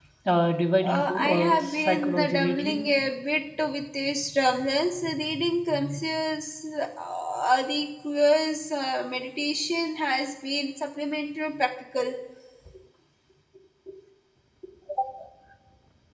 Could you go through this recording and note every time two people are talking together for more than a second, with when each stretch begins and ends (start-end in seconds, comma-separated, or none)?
0.8-2.8